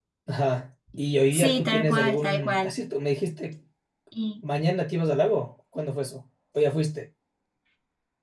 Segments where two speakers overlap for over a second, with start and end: 1.3-2.7

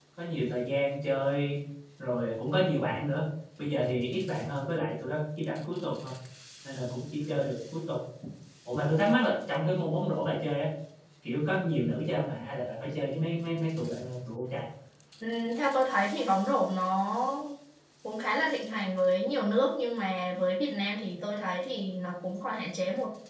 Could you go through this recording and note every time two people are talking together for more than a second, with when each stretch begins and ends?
none

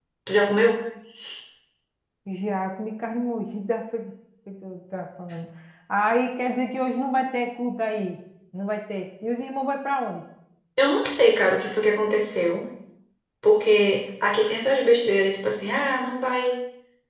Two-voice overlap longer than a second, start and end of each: none

